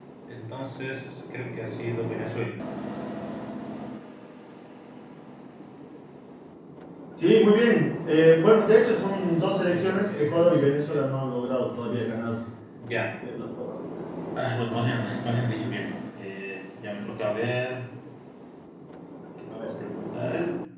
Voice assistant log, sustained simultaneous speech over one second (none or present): present